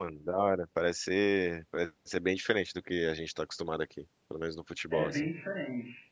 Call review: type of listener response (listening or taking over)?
taking over